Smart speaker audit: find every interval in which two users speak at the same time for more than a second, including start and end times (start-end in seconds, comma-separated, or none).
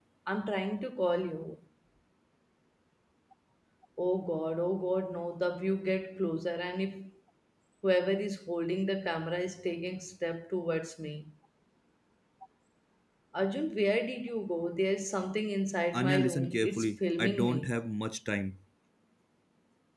15.9-17.7